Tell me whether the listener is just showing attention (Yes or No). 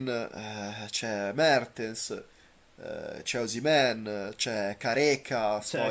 No